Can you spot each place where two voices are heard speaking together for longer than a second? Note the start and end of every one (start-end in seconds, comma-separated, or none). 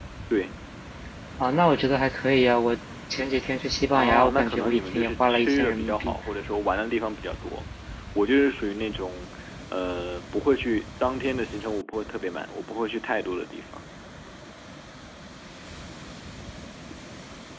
3.9-6.1